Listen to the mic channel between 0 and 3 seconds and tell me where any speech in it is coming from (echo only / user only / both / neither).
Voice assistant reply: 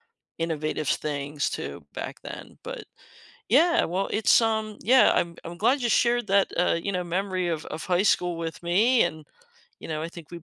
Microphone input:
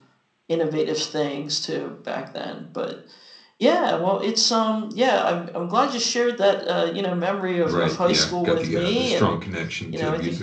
echo only